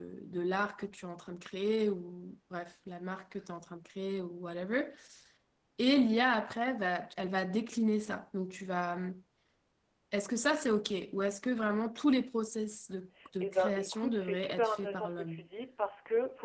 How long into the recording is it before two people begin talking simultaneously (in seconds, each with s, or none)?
13.4 s